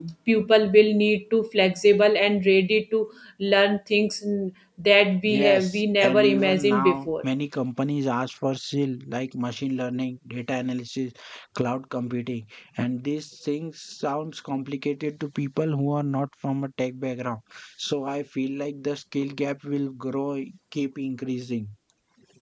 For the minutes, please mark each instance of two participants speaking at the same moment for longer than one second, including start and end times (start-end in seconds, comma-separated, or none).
5.2-7.1